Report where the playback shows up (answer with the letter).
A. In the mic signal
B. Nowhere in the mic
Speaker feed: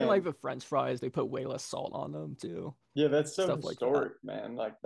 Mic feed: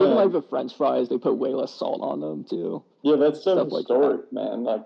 A